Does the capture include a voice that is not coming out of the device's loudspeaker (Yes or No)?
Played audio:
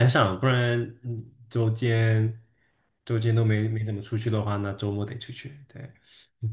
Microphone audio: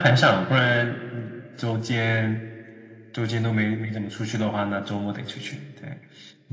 No